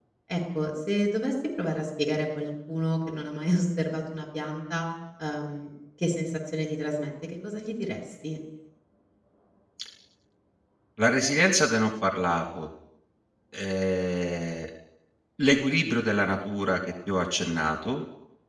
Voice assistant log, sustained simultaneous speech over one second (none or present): none